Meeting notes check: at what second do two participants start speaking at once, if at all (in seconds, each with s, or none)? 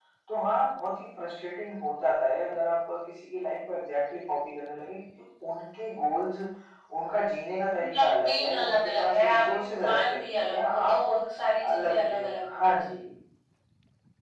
7.8 s